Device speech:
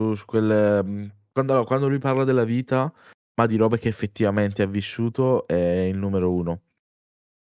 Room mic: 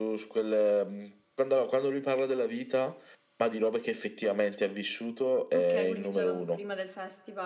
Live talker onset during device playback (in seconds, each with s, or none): 5.5 s